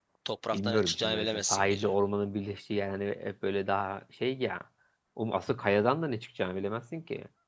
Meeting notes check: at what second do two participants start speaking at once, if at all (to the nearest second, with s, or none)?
1 s